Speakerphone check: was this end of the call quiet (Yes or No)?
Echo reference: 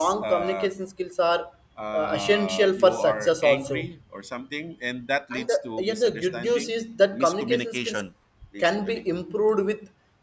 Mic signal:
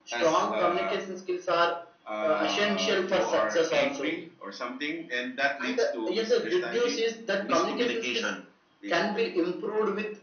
Yes